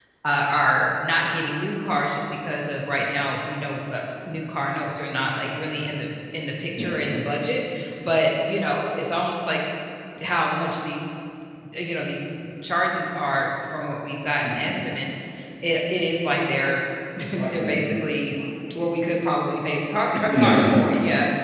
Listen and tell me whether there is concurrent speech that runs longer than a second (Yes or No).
No